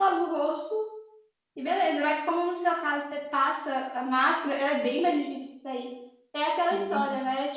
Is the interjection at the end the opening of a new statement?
No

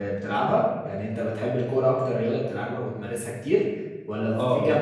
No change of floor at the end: Yes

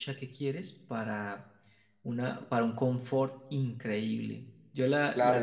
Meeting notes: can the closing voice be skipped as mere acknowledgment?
No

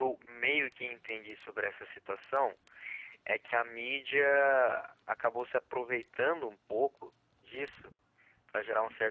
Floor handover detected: No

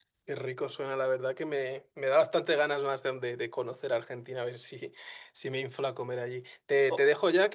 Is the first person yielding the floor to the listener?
No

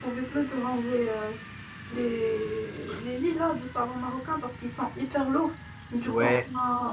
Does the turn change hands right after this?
No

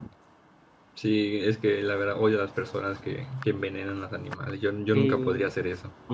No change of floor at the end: No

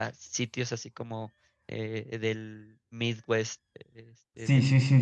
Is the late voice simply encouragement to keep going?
No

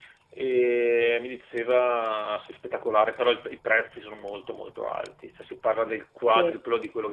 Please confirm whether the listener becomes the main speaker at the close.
No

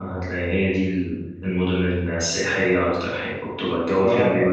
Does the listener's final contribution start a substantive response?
Yes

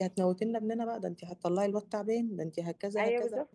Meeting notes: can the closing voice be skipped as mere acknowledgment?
No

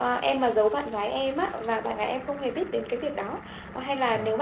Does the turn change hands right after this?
No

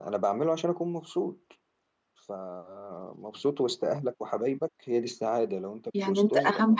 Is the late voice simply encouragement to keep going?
No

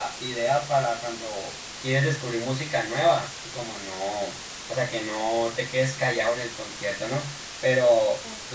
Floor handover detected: No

